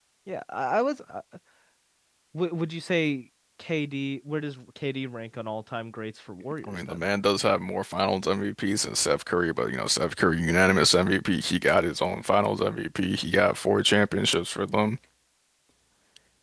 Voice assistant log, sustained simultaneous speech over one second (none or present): none